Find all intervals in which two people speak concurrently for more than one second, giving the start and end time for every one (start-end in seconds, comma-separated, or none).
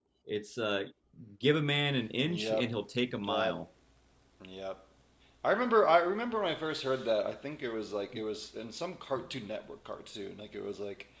none